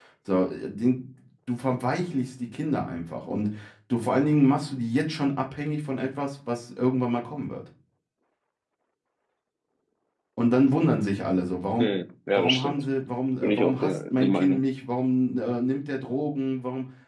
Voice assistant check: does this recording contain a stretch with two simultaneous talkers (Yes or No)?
Yes